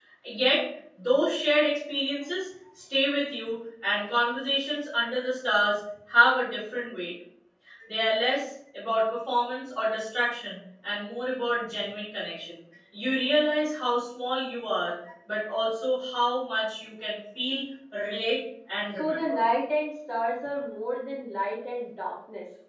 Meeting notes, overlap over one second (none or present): none